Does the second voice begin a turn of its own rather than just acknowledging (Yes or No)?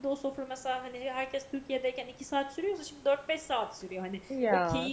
No